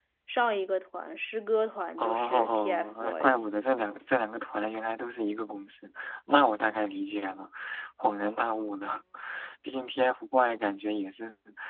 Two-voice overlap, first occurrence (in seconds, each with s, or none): 2.0 s